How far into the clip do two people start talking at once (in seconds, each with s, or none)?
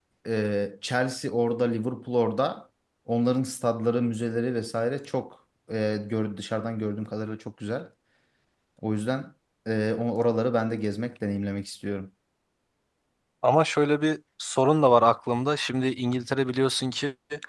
none